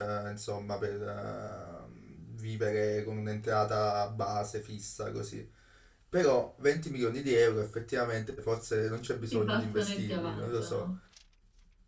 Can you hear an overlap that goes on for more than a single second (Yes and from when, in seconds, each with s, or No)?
Yes, from 9.3 s